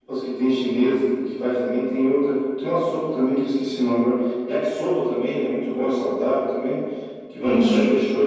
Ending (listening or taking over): listening